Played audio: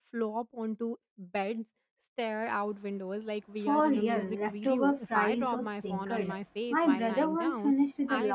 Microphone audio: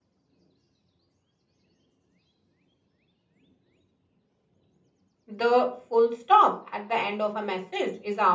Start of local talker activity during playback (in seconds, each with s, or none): 5.3 s